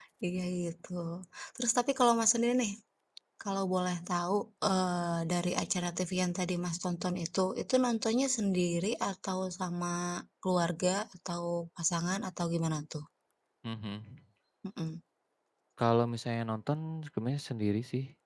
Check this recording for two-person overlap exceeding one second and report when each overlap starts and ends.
none

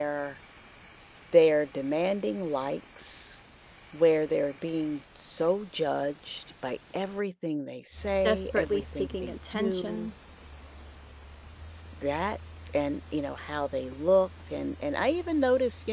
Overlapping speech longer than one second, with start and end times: 8.2-10.1

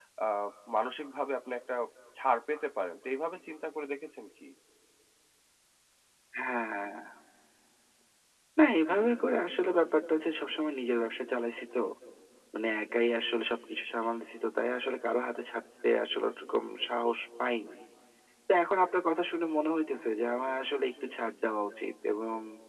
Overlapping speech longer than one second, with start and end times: none

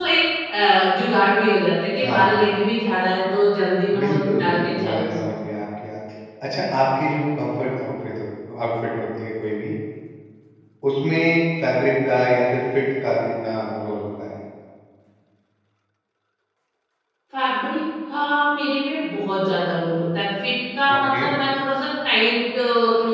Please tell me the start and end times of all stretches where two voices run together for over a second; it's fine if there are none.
3.9-5.2

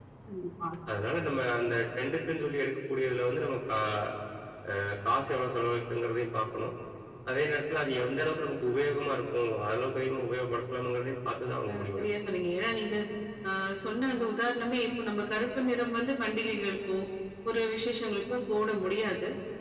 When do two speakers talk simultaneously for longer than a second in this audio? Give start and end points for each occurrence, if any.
none

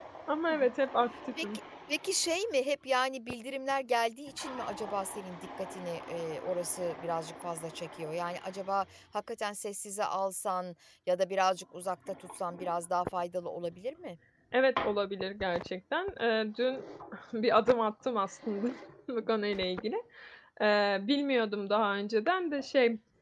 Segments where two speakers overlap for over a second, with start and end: none

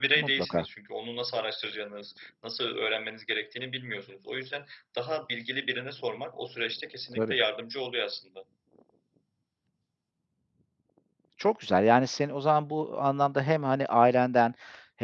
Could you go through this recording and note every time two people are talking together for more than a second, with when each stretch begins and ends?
none

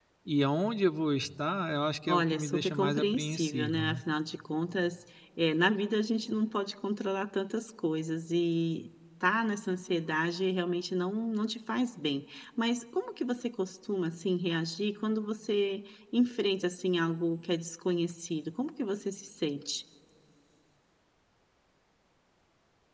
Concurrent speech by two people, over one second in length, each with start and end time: 2.0-4.0

